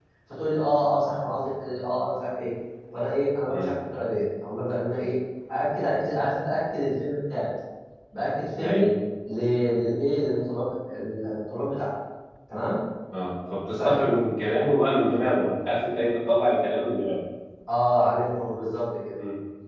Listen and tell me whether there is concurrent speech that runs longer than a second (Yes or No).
No